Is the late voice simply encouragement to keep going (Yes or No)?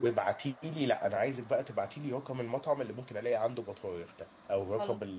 Yes